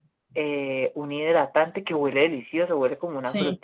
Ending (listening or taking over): listening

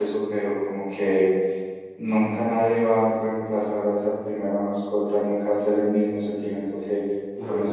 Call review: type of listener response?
listening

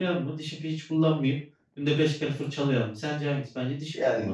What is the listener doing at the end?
taking over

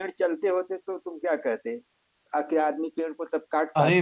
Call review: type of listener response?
taking over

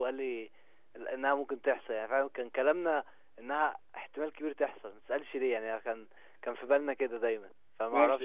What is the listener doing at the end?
taking over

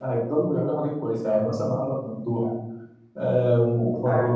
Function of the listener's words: listening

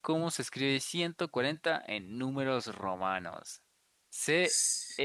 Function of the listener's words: listening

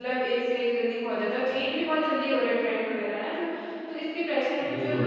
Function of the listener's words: listening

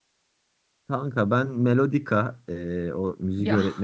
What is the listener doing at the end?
listening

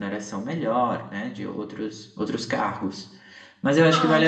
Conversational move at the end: listening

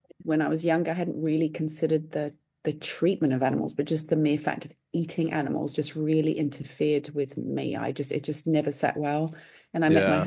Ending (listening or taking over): listening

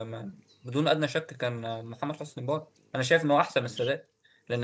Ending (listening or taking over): listening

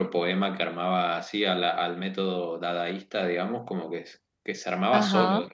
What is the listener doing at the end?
listening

